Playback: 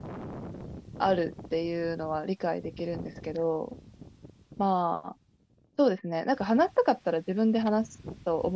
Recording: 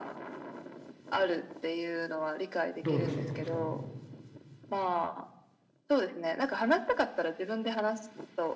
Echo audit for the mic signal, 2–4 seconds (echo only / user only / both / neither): both